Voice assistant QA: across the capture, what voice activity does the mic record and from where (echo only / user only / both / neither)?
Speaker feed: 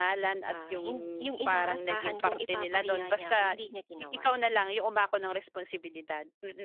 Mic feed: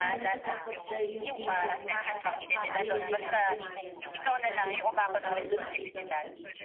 both